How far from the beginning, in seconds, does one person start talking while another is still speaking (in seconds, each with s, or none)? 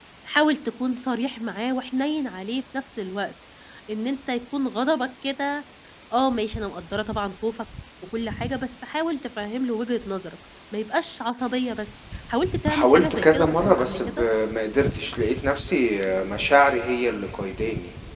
12.7 s